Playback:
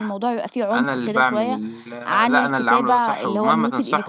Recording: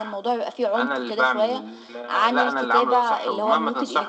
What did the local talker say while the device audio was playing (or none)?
none